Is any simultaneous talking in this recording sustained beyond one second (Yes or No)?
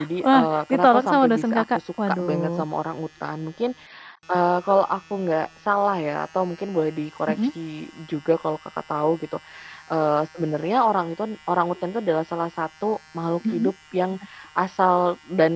Yes